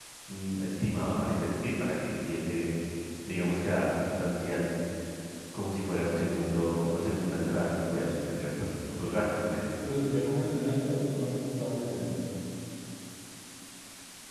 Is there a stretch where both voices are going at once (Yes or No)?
No